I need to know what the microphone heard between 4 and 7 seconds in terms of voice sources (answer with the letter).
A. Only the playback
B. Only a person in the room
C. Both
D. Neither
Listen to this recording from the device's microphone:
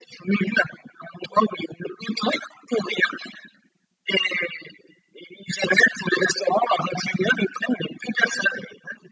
A